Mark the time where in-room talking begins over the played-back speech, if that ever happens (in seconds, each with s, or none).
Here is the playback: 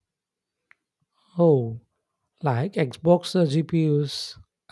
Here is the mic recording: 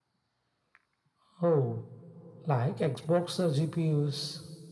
none